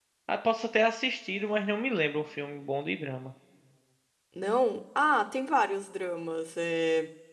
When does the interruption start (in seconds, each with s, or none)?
none